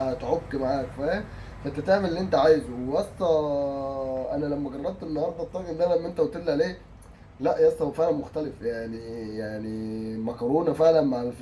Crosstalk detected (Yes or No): No